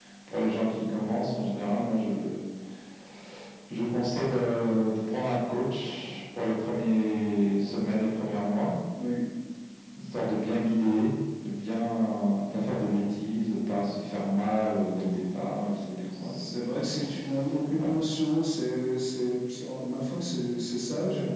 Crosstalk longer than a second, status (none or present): none